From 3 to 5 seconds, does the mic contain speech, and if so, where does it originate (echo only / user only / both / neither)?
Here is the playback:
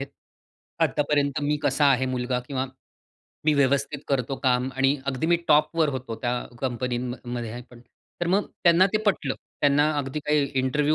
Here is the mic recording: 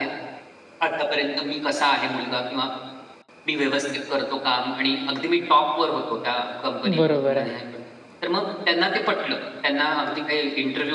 echo only